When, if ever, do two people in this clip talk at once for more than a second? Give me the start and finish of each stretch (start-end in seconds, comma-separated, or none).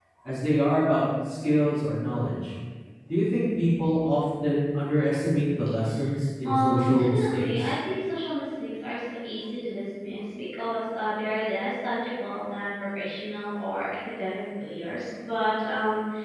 6.4-7.7